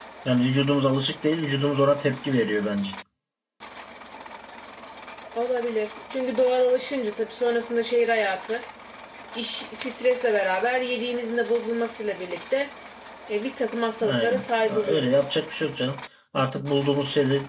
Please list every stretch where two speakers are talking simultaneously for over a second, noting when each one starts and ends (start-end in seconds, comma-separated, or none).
14.0-15.3